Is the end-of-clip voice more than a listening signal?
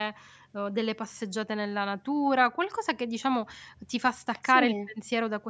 No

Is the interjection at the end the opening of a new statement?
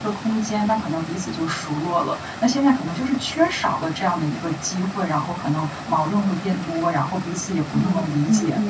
Yes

